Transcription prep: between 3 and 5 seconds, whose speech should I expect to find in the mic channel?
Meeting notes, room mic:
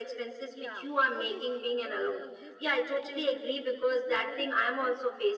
both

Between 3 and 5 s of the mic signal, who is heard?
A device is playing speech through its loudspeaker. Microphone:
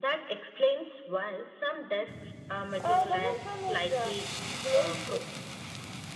echo only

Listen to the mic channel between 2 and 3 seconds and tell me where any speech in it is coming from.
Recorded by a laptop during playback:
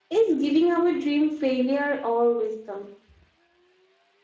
user only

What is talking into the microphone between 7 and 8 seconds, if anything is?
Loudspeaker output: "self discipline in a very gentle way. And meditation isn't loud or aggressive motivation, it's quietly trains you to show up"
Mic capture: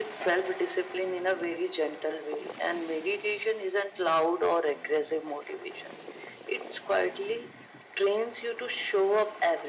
echo only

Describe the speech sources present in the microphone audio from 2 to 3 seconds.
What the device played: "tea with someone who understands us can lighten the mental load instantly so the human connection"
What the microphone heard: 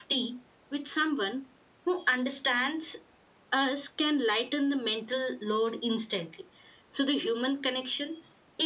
echo only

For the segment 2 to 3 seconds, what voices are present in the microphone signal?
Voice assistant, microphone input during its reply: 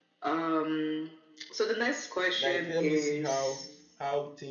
both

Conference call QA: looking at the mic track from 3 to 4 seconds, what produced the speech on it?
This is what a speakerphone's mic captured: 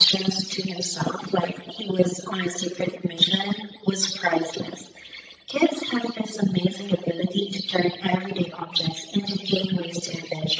echo only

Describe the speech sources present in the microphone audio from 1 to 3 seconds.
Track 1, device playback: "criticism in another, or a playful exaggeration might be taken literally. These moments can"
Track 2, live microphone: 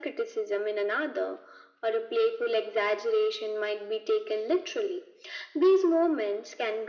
echo only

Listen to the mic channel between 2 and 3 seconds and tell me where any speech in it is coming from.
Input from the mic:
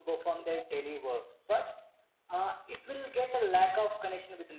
echo only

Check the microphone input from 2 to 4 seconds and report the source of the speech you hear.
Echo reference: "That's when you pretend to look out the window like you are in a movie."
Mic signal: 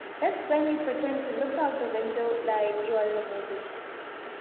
echo only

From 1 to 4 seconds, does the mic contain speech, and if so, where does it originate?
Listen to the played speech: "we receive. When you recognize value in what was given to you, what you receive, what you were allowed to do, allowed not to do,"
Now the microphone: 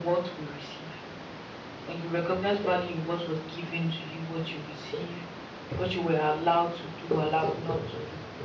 echo only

